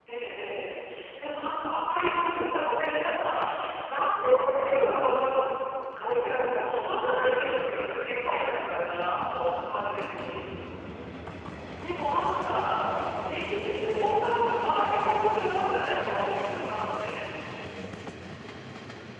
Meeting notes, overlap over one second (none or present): none